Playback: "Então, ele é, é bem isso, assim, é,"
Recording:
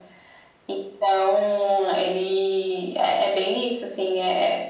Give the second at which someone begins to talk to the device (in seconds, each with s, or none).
none